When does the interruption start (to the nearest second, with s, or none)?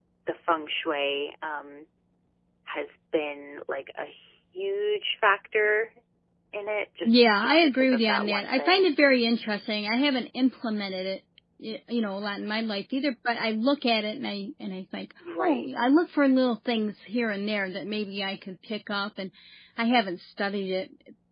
7 s